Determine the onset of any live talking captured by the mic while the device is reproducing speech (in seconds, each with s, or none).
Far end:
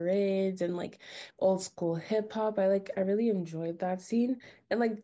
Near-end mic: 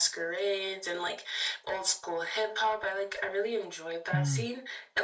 4.1 s